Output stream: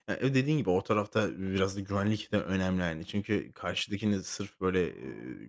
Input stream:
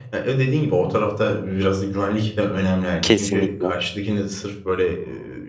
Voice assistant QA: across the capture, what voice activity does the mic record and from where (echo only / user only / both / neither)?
both